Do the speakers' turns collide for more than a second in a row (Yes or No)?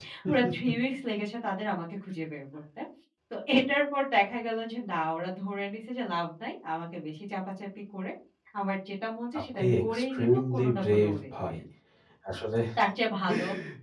Yes